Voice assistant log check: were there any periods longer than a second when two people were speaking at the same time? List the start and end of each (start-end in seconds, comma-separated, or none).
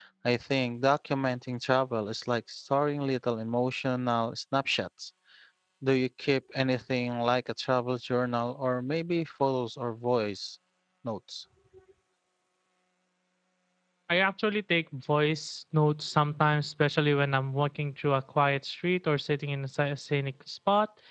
none